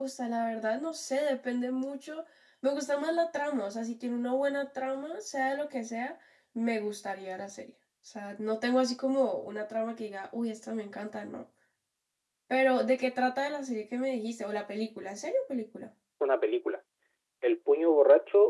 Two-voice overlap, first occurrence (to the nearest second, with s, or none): none